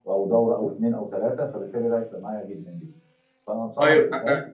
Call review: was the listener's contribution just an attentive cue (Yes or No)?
No